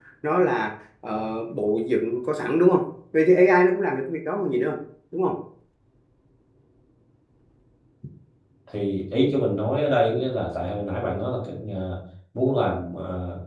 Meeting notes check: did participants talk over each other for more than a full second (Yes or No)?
No